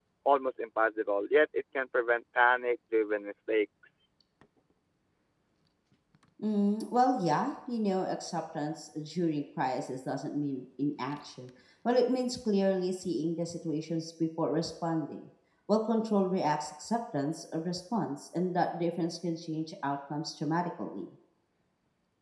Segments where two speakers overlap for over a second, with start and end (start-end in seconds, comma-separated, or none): none